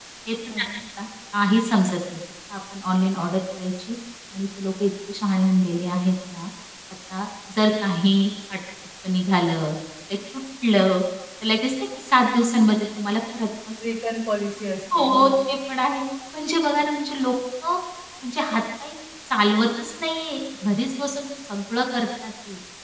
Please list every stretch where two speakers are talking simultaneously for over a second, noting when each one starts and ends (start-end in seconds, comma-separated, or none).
none